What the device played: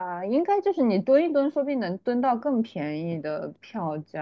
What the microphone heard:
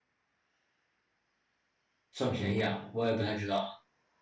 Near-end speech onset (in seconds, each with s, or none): 2.1 s